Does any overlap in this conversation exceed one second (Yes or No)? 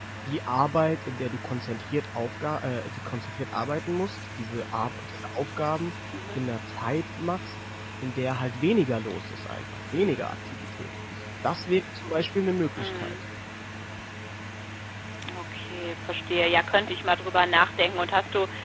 No